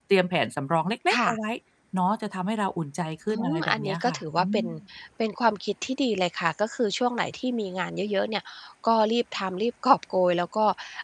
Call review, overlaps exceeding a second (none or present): present